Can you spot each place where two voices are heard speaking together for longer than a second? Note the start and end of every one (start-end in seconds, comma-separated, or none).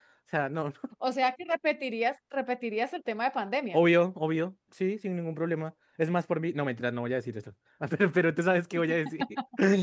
none